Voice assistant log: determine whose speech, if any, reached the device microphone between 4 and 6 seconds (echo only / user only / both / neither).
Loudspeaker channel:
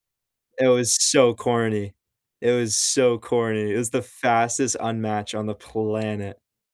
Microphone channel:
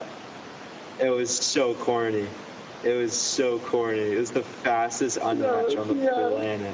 both